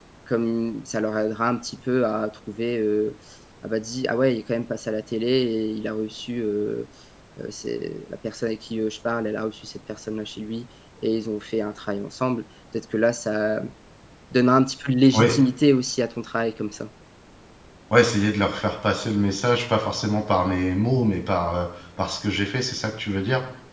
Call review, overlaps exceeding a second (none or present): none